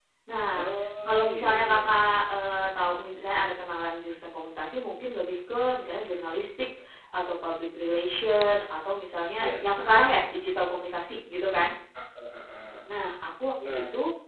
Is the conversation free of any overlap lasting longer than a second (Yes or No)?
No